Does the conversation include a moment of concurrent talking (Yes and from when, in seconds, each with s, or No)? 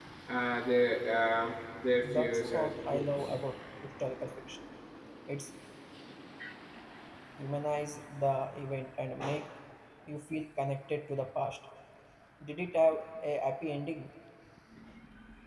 Yes, from 2.0 s